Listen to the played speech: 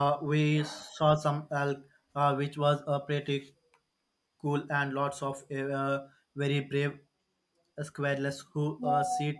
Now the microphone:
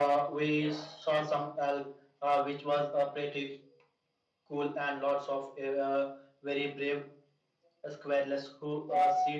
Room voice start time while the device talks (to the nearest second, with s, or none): none